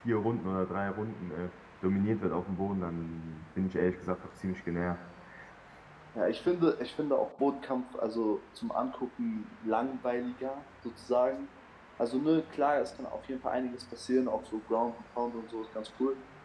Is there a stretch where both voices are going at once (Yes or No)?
No